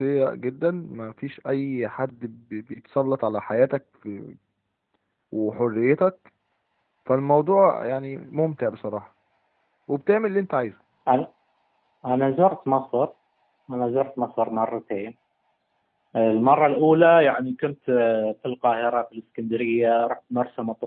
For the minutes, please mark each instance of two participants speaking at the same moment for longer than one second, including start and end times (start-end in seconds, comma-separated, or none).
none